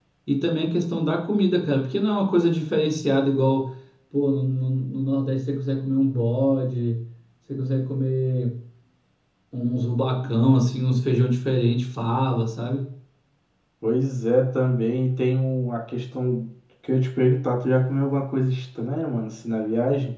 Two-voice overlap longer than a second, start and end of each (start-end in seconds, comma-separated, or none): none